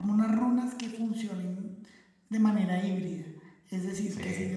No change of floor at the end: Yes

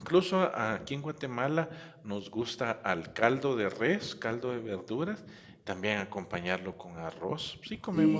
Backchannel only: No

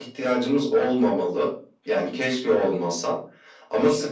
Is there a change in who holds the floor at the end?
No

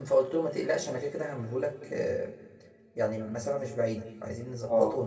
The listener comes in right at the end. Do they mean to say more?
Yes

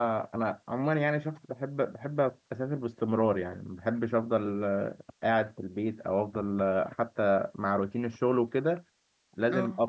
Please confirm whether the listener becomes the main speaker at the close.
No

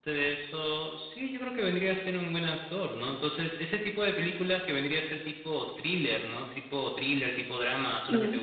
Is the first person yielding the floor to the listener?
Yes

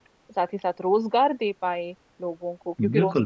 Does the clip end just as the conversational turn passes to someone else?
Yes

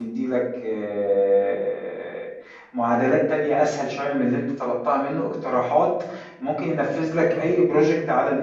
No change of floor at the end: Yes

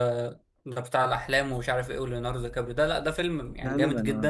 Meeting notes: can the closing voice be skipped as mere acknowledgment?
Yes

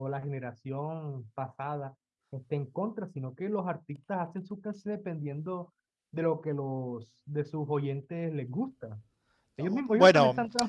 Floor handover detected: Yes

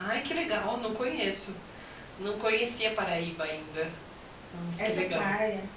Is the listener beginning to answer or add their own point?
Yes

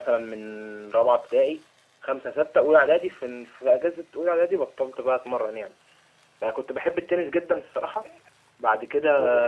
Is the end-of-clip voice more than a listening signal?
No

